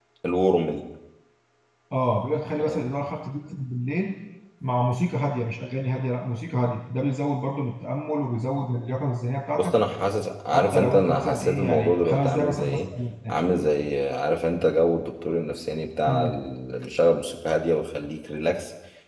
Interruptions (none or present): present